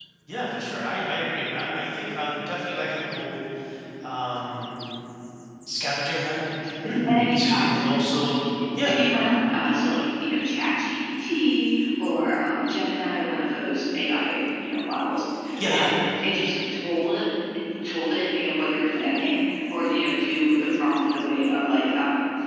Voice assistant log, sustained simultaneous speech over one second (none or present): none